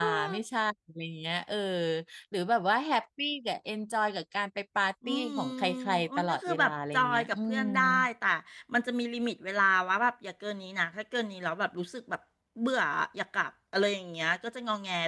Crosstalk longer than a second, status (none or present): present